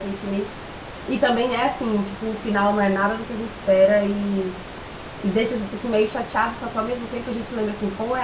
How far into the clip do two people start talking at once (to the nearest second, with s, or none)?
none